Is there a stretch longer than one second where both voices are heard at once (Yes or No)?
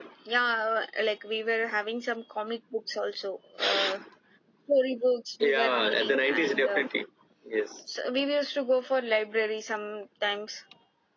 Yes